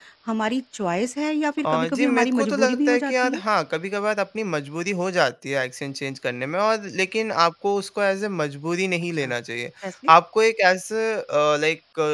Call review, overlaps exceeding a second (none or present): present